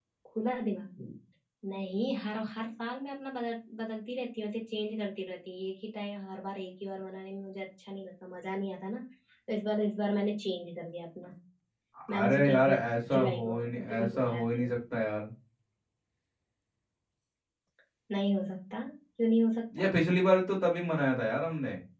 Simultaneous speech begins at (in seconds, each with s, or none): 12.1 s